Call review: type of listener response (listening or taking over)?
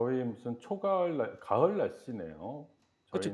taking over